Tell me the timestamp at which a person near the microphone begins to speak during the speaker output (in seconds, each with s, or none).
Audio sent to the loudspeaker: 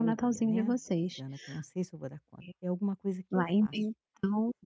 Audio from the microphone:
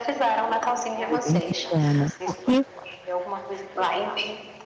1.1 s